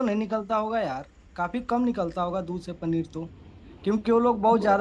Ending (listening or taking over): listening